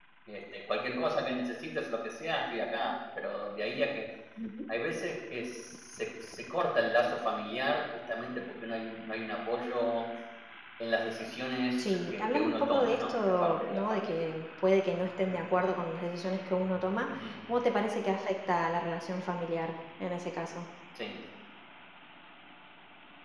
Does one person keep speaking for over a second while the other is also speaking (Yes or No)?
Yes